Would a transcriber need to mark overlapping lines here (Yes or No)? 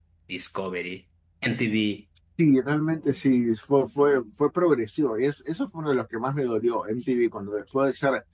No